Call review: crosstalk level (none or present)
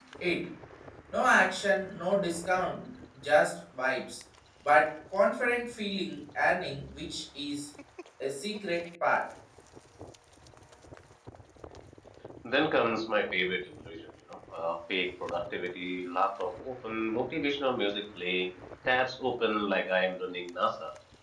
none